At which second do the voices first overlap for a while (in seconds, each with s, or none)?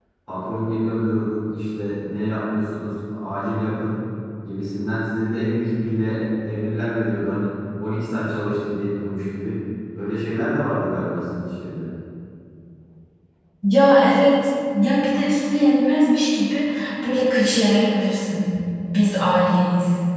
none